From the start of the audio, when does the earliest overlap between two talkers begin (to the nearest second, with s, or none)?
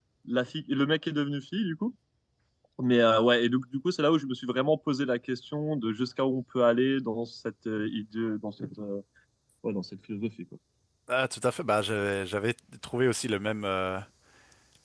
none